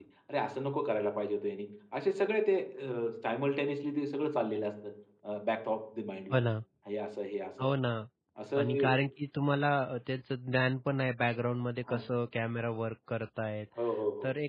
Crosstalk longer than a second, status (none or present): none